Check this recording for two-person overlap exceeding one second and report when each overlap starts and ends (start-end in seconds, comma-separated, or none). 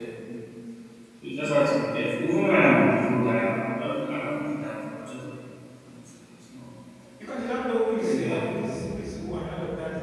none